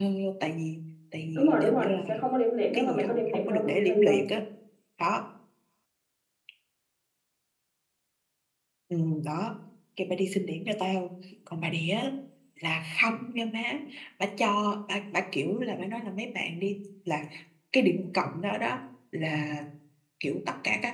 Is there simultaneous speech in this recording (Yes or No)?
Yes